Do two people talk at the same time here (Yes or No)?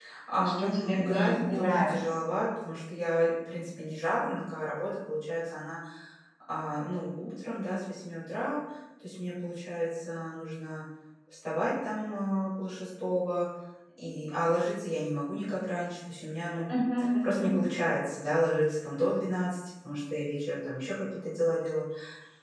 Yes